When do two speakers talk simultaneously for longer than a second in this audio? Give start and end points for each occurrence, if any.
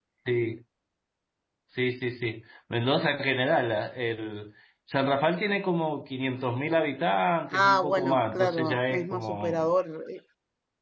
7.5-9.7

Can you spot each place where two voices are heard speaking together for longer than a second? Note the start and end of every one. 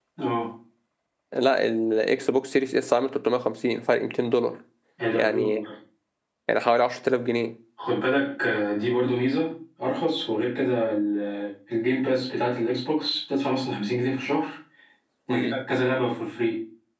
none

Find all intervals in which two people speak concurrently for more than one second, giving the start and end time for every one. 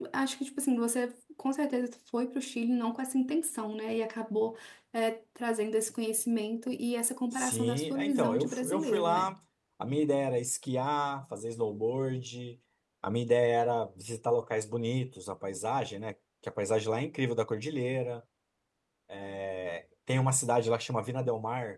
7.3-9.3

